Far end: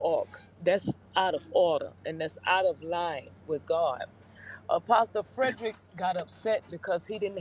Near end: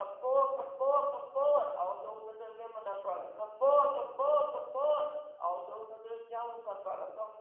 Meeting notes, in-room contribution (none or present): present